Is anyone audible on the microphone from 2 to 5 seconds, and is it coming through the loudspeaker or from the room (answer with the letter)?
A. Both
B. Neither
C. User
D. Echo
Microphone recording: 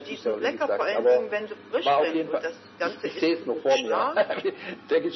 D